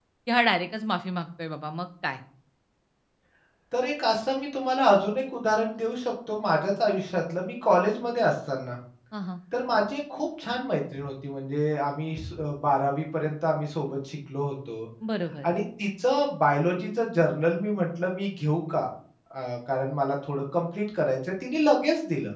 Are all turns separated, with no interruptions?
Yes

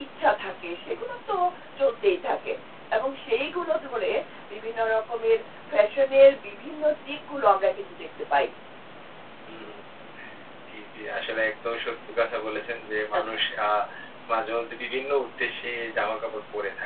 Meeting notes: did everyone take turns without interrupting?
Yes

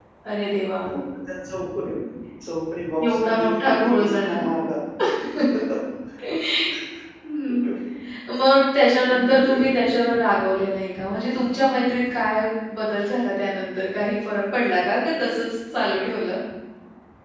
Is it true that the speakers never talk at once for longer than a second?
No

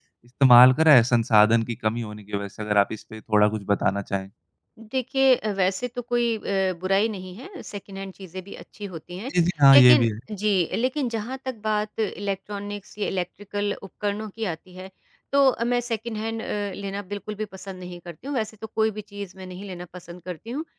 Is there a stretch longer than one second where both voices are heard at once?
No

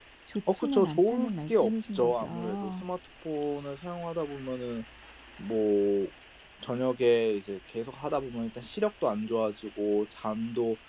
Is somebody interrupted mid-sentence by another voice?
Yes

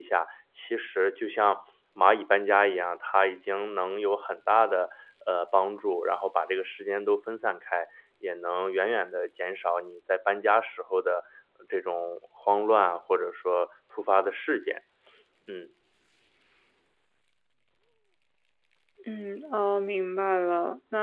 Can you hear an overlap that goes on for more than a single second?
No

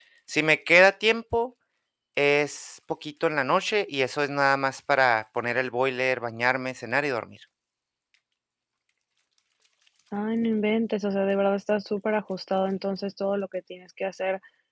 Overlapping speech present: No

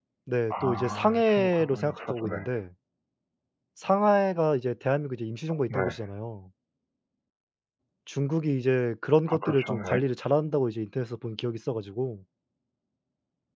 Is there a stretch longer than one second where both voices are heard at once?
Yes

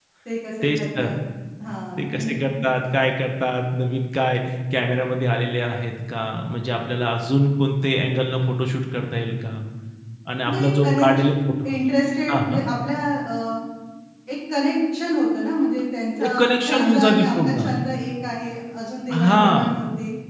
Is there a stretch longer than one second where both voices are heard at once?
Yes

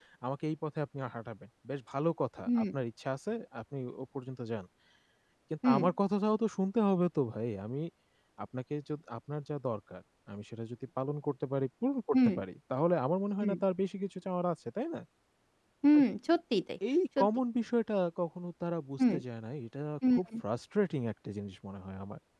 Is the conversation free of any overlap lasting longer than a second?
Yes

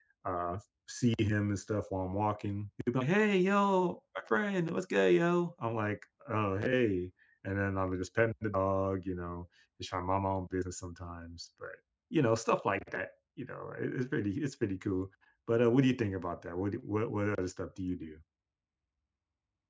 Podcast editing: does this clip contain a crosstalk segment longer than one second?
No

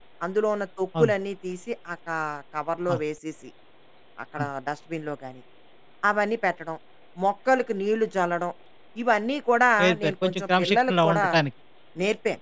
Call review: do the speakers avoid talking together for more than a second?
No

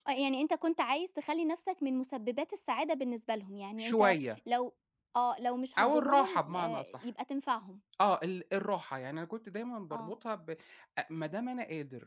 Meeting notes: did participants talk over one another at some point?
Yes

